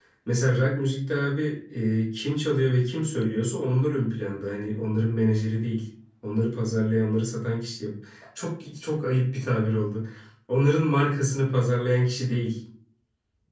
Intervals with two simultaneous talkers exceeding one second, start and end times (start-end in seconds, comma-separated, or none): none